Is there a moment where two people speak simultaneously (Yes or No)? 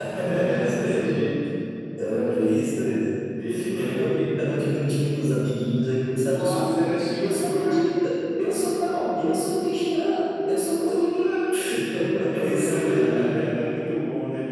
Yes